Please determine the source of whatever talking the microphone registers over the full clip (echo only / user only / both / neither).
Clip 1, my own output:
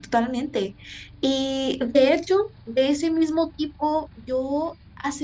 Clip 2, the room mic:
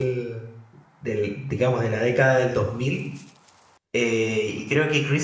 user only